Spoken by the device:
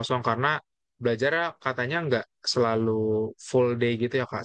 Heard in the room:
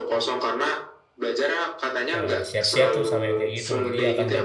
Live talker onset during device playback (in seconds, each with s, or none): 2.1 s